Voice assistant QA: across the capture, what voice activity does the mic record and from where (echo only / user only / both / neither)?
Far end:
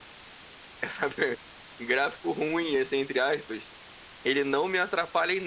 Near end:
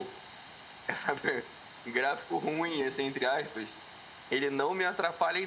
echo only